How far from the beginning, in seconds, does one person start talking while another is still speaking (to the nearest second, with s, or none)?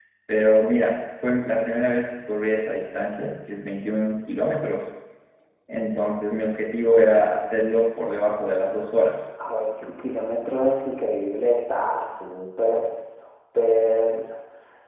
none